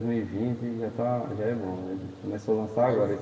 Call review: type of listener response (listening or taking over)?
listening